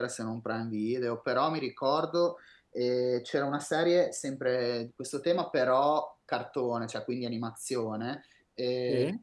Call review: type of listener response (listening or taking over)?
listening